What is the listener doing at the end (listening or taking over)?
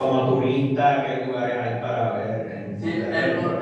taking over